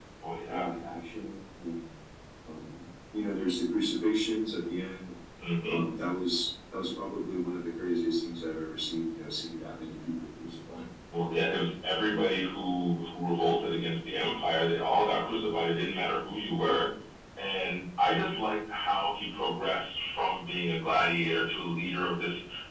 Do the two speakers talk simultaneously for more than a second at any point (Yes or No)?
No